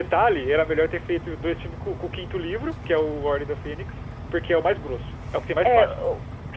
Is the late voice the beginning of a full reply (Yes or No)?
Yes